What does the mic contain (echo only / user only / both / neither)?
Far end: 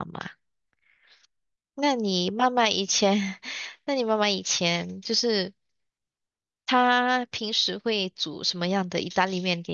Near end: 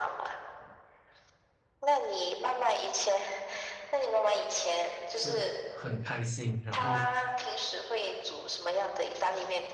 both